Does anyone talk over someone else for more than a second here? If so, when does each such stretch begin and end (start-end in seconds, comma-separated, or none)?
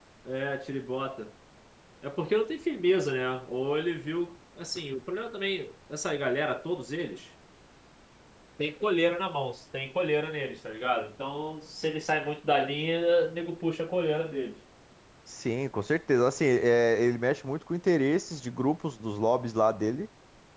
none